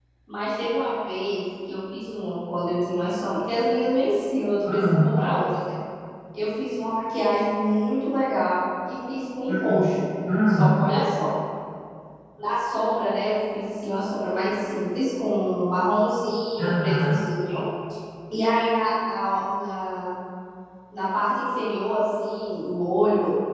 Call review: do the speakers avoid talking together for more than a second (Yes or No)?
Yes